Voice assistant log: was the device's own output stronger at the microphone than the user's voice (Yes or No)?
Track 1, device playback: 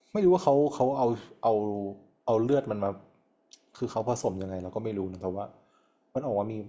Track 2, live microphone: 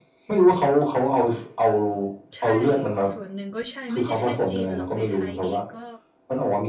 Yes